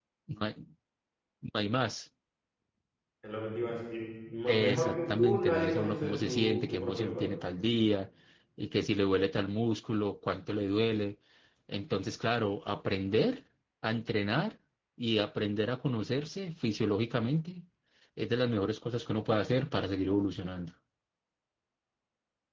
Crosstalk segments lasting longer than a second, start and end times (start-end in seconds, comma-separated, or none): 4.5-7.3